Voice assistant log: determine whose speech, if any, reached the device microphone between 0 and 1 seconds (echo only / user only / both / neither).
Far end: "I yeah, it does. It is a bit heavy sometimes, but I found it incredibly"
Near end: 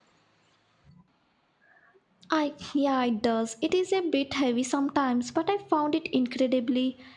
neither